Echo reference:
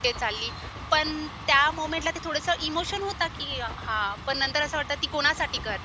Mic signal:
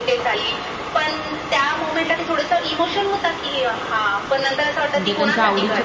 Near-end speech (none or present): present